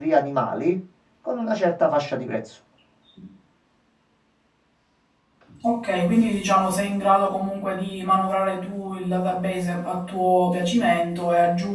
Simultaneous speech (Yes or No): No